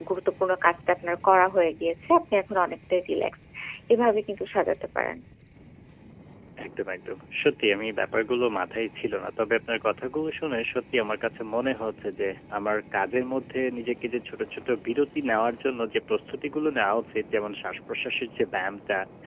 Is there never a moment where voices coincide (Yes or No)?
Yes